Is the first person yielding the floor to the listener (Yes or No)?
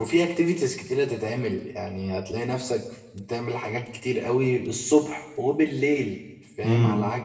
No